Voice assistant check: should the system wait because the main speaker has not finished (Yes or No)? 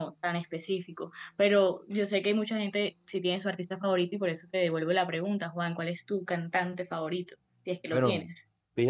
No